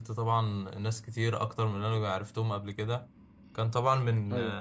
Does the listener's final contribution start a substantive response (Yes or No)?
No